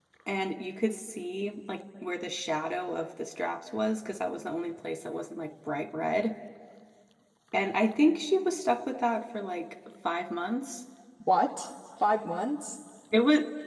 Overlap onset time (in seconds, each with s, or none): none